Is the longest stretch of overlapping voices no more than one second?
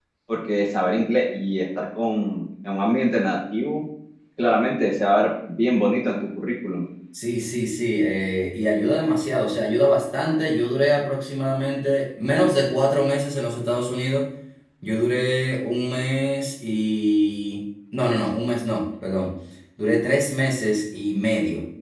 Yes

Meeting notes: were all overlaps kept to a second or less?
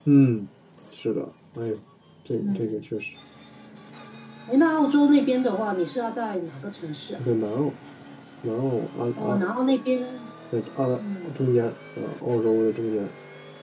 Yes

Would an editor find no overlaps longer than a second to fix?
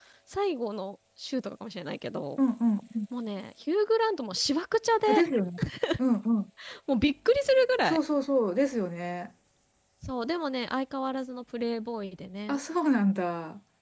Yes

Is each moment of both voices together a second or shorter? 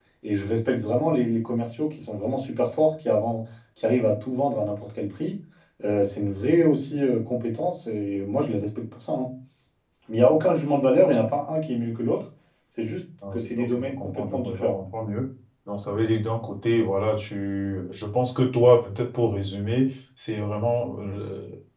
No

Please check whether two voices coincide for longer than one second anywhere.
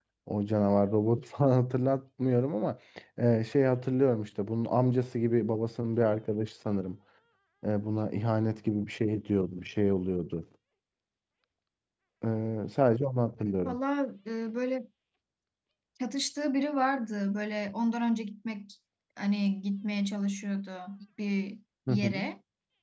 No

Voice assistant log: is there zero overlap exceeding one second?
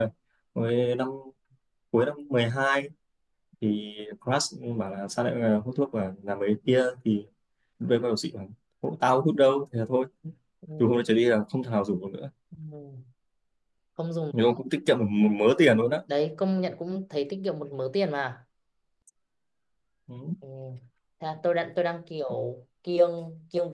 Yes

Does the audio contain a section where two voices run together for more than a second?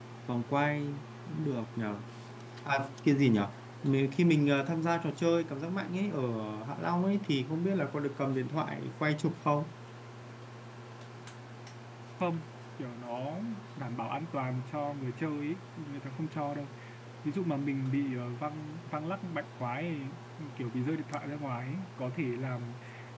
No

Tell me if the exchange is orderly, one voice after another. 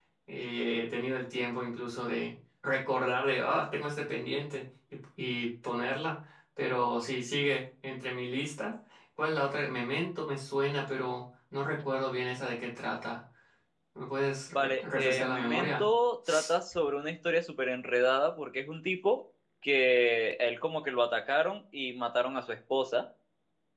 No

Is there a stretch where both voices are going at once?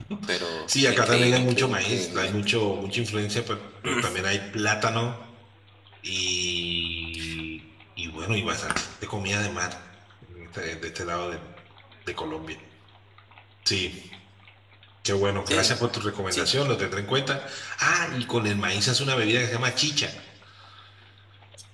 Yes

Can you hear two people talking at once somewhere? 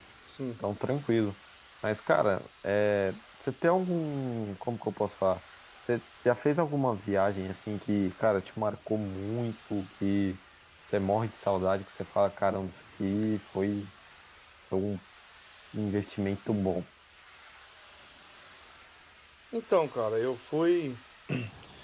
No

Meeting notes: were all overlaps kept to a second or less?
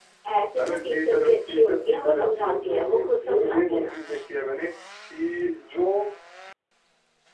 No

